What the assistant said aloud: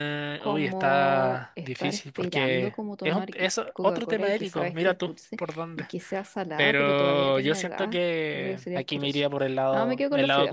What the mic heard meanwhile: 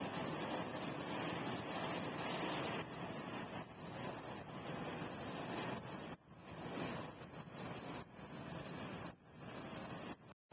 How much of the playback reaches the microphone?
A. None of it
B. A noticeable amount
A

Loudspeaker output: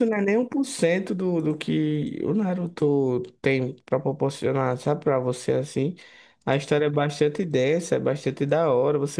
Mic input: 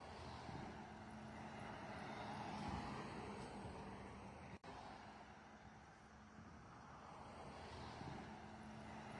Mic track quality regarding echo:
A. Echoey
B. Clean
B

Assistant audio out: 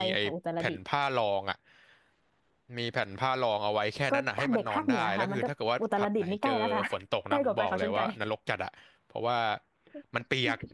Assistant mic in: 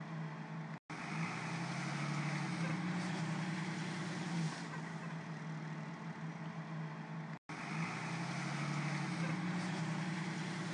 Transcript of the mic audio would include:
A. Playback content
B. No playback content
B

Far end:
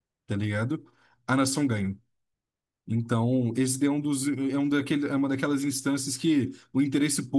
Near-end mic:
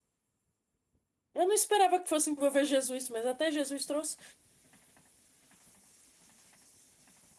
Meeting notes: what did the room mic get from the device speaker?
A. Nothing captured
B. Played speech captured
A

